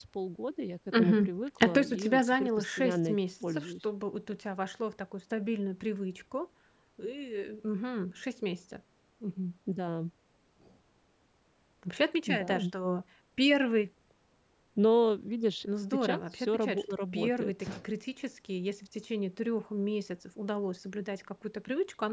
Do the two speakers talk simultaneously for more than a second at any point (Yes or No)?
Yes